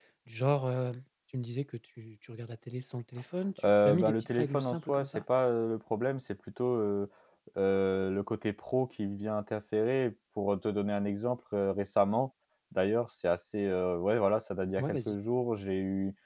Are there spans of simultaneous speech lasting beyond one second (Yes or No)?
Yes